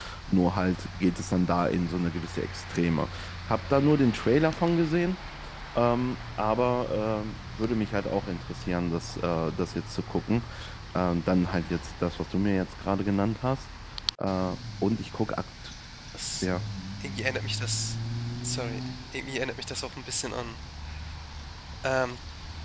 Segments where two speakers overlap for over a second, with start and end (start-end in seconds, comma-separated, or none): none